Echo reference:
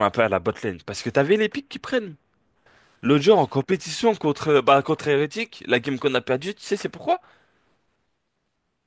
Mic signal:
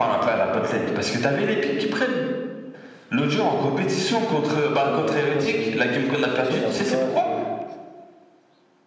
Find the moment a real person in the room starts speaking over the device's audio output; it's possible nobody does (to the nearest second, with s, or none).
5 s